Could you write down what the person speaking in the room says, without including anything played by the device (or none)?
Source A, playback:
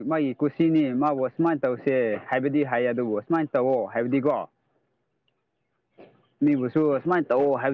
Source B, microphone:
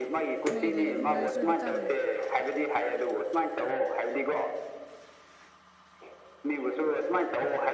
ꯅꯣꯏ ꯂꯩꯔꯤꯗꯤ ꯅꯣꯏꯁꯨ ꯈꯤꯇꯪ